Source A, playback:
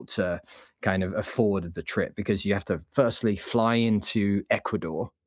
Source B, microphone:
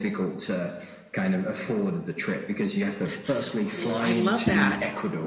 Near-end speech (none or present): present